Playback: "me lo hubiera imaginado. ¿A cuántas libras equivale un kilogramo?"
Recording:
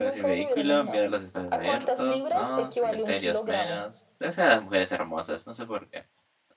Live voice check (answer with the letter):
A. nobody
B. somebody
B